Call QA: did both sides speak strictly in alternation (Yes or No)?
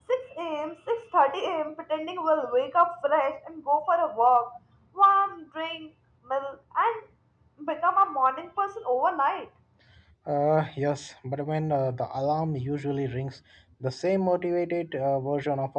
Yes